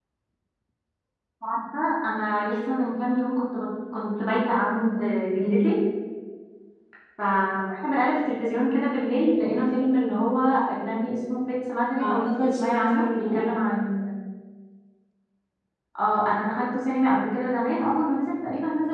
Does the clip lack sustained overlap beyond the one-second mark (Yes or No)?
No